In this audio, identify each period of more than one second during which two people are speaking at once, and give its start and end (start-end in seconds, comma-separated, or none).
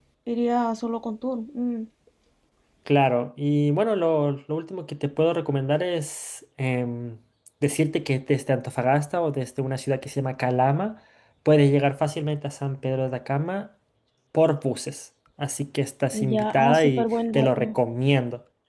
16.3-17.8